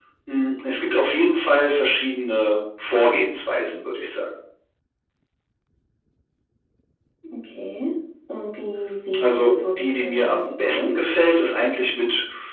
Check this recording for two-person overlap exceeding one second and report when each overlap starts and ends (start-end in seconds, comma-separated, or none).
9.2-11.0